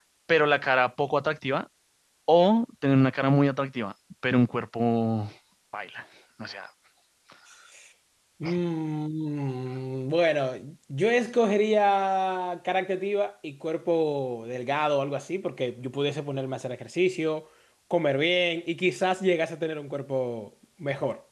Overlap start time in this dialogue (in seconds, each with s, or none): none